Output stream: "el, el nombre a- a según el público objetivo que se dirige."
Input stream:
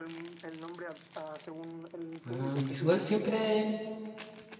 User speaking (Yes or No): Yes